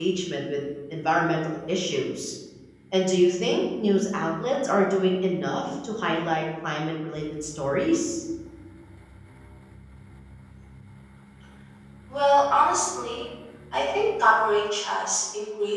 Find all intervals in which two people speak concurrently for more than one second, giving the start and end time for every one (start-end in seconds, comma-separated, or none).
none